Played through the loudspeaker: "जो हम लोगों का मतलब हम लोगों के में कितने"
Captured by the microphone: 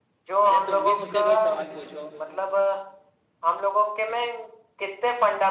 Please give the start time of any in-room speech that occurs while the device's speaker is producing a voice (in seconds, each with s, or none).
0.4 s